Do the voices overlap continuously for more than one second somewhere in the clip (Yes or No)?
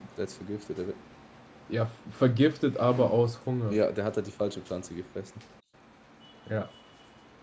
No